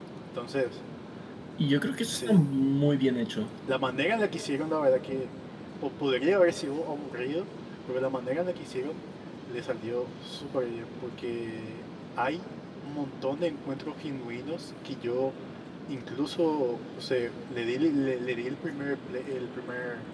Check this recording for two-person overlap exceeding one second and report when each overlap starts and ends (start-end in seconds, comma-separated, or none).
none